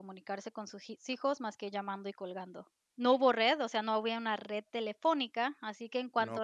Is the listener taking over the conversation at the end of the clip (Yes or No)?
No